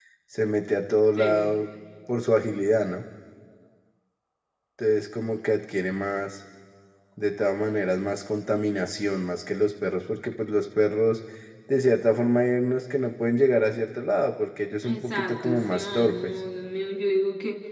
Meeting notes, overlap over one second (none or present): present